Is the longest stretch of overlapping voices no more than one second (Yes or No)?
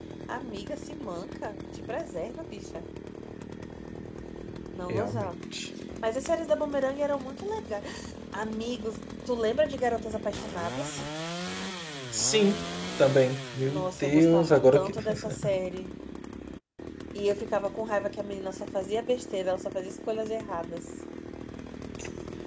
No